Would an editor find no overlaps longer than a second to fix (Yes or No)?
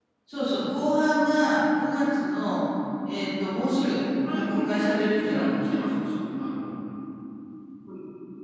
No